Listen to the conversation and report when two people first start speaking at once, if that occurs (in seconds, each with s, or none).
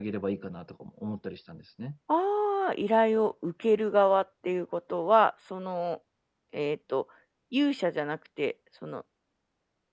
none